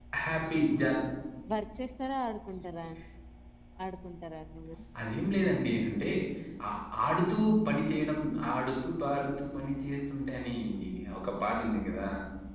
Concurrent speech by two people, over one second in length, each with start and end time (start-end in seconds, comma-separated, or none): none